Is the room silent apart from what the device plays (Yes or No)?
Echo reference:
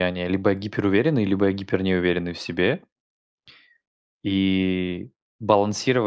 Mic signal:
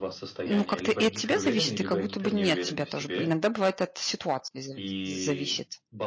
No